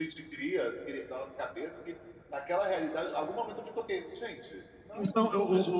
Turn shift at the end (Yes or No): Yes